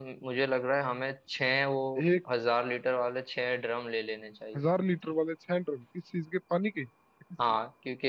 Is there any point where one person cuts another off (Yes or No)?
No